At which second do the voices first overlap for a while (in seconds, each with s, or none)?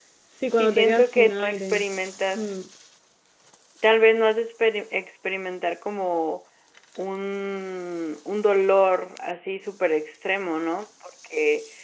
0.6 s